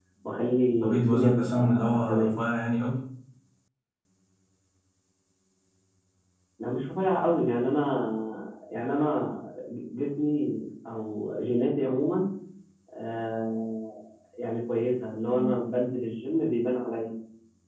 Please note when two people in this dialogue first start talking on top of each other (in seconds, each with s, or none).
0.8 s